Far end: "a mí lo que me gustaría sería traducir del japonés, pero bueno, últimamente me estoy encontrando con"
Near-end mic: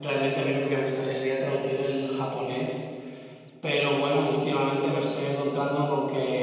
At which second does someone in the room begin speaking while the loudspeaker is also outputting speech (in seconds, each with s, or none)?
none